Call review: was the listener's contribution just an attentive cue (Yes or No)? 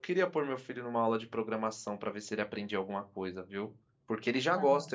Yes